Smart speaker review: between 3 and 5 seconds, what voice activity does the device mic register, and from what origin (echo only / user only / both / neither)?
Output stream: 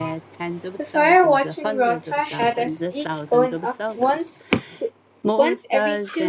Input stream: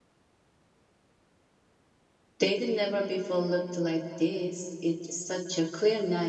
user only